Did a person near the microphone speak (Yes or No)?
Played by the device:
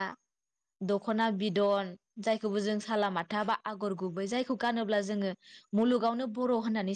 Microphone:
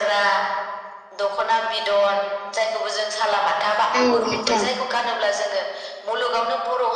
Yes